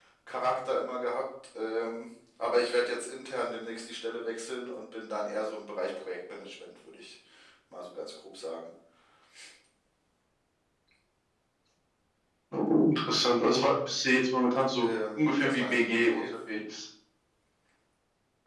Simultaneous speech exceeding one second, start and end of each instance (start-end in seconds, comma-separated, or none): 14.8-16.2